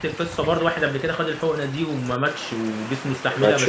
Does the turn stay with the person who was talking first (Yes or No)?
Yes